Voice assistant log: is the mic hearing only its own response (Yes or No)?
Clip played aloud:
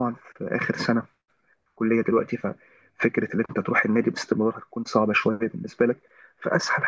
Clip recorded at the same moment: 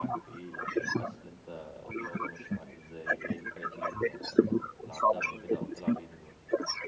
No